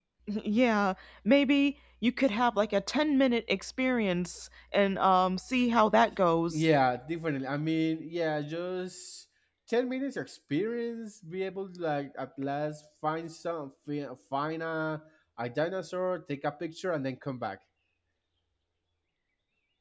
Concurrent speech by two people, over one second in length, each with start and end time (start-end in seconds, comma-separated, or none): none